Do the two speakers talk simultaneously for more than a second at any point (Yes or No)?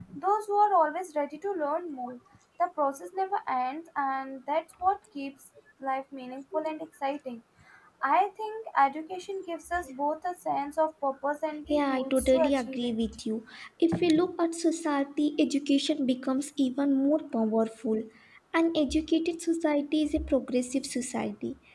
Yes